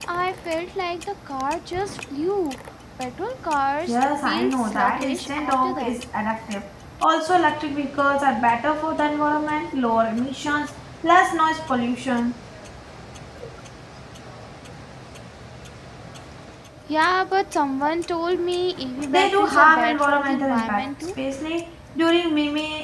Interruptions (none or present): present